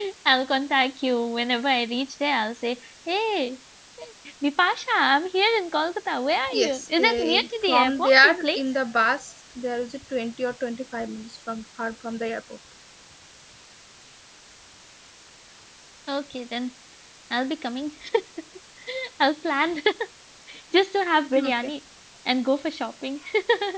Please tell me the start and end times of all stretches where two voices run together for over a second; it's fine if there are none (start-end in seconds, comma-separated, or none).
6.5-8.6